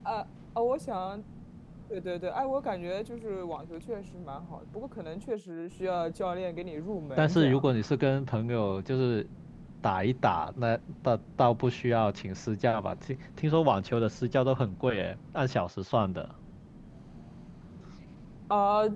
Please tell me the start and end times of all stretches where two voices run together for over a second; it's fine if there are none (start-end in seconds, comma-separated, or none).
none